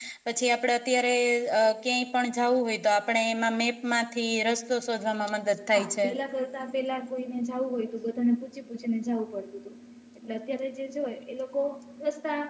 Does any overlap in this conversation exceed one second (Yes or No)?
No